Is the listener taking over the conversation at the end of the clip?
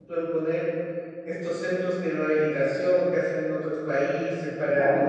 No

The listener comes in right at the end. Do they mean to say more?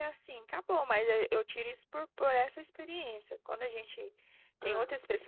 No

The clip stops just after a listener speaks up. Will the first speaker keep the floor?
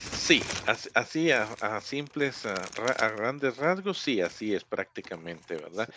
Yes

